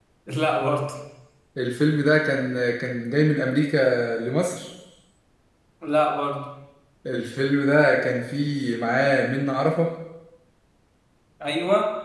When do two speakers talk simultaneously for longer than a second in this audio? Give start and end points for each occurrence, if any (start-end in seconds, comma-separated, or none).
none